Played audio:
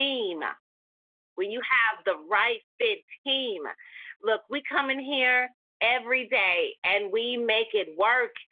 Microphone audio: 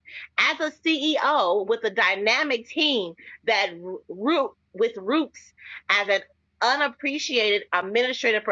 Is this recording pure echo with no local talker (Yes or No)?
No